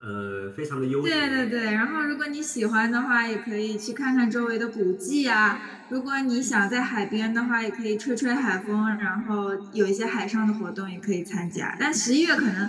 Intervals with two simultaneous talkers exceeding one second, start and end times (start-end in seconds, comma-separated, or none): none